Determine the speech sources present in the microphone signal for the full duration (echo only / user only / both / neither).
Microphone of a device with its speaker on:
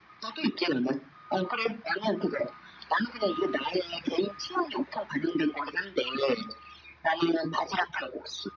echo only